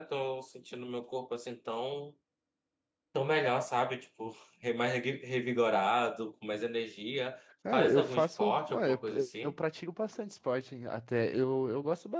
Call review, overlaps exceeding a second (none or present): present